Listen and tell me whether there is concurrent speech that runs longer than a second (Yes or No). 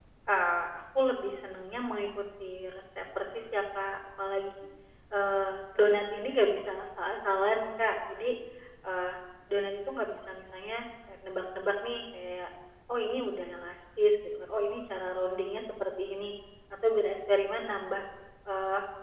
No